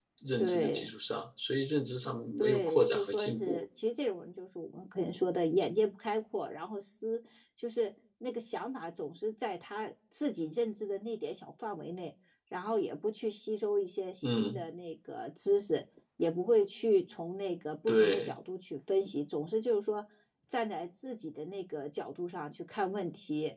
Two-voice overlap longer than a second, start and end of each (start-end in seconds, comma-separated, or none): 2.4-3.6